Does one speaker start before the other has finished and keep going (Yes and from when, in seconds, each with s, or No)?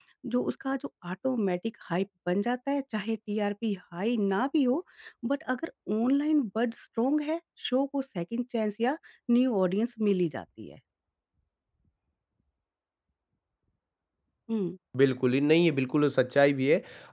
No